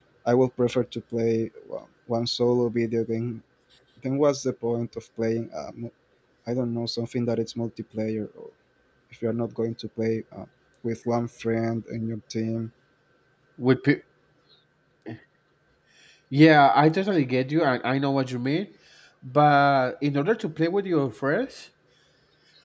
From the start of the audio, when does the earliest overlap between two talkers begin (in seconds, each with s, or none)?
none